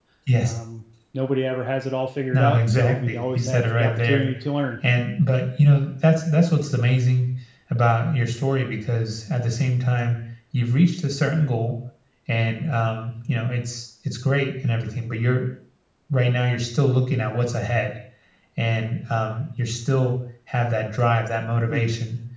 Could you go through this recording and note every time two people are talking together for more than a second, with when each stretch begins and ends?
2.3-4.3

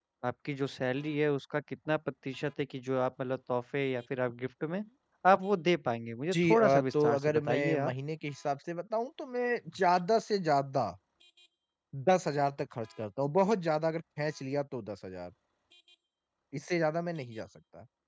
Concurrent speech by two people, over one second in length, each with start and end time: 6.3-7.9

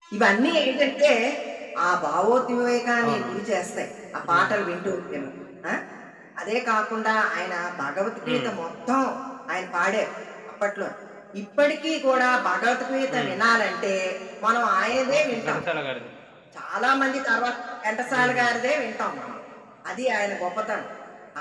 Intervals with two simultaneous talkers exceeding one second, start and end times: none

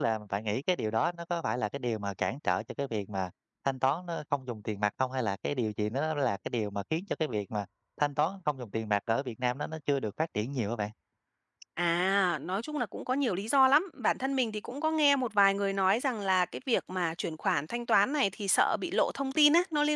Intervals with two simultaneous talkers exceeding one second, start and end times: none

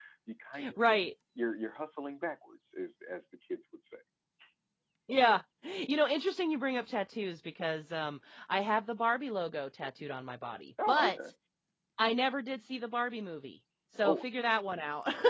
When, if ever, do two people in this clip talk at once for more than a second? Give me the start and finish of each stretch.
none

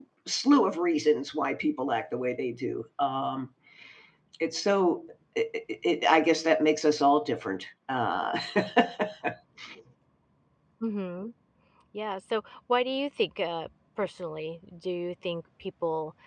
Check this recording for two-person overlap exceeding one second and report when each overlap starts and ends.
none

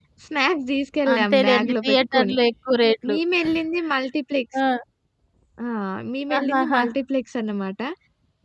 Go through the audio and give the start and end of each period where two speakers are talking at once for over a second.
1.1-2.3

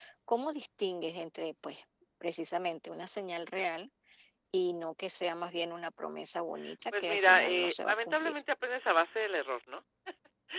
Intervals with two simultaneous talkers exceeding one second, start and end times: 7.0-8.4

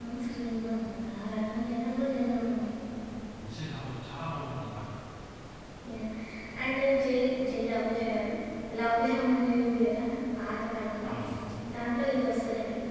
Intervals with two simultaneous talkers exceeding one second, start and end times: none

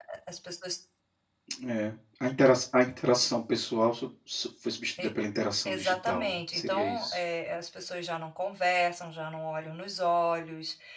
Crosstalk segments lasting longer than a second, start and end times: 5.7-7.2

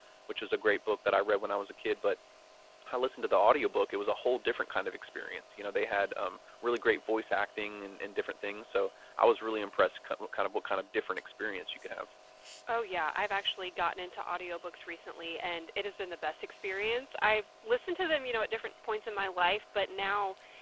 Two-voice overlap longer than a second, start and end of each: none

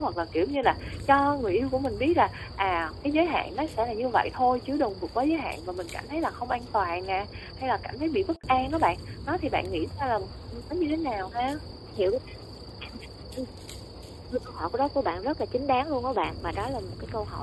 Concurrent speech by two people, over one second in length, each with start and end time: none

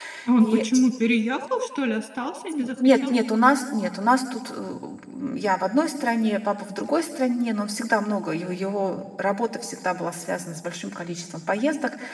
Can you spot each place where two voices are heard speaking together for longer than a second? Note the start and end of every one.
none

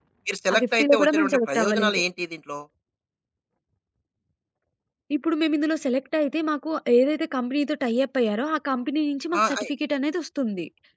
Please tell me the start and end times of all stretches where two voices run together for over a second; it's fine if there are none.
0.5-2.0

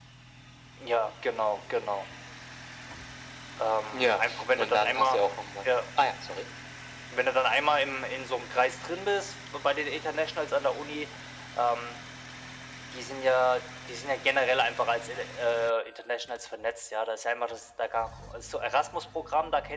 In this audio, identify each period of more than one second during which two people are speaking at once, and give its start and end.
3.9-5.2

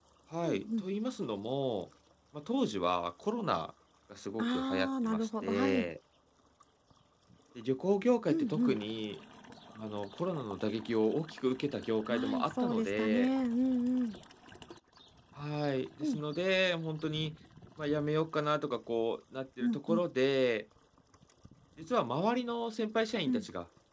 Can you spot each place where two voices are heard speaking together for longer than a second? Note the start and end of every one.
4.4-5.9, 12.1-13.3

